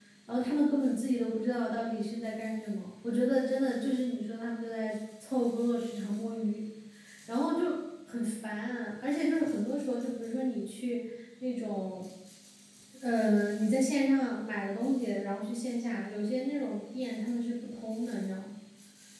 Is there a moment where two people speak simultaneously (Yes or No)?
No